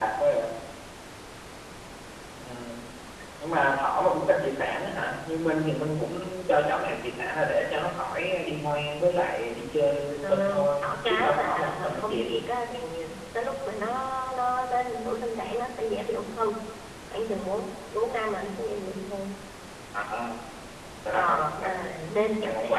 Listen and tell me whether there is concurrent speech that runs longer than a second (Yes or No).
Yes